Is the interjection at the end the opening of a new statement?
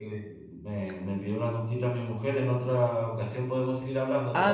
Yes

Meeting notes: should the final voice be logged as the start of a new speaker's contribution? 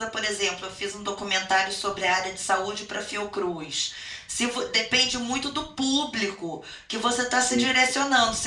No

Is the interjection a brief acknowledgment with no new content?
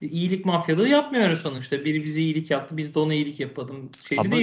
Yes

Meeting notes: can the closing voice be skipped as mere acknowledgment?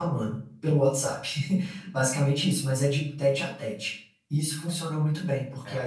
Yes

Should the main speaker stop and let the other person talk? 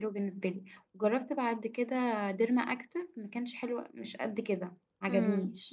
Yes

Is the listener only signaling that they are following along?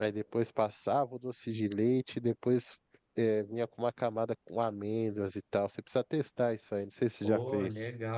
No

